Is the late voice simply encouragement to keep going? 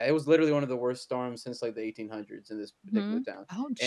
No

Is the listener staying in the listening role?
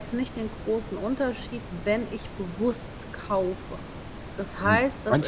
No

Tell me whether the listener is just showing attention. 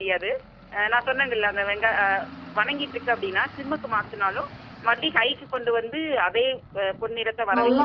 No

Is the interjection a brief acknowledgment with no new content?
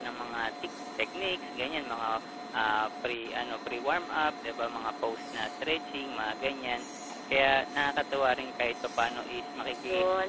No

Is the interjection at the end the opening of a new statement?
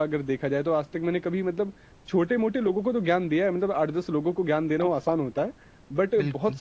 No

